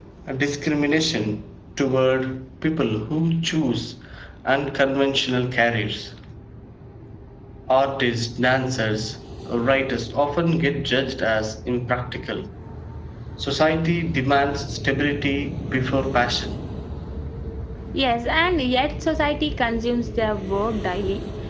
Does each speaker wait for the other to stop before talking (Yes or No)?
Yes